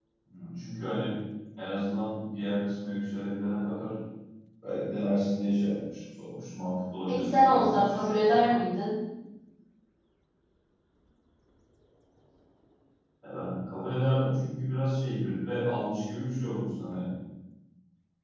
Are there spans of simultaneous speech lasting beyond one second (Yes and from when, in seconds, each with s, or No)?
Yes, from 7.1 s